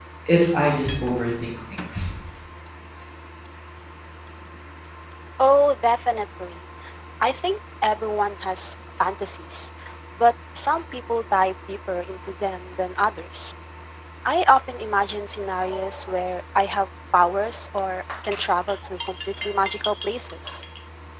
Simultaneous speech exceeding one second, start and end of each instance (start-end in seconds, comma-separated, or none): none